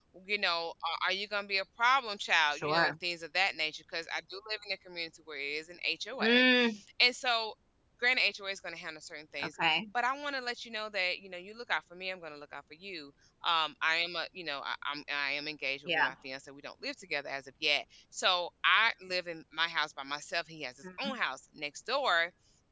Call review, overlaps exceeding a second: none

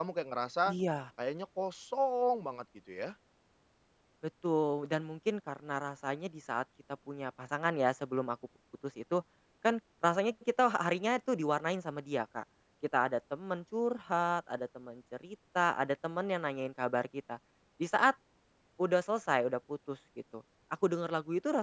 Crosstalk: none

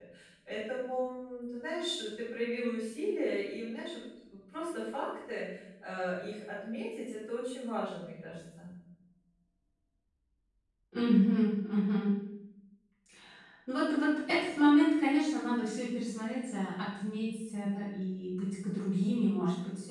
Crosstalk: none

